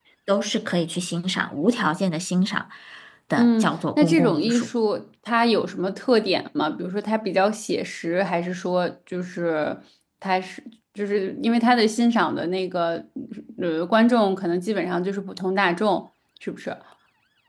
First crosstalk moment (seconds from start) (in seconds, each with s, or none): 3.4 s